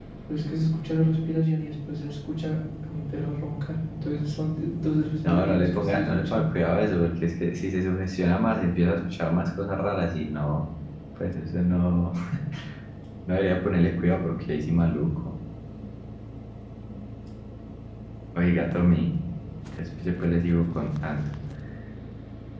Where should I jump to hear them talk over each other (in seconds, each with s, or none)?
5.2 s